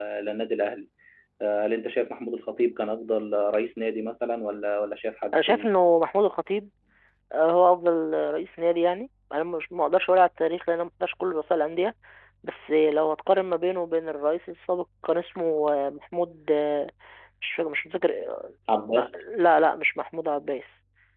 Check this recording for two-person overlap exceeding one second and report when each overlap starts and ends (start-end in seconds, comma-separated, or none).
none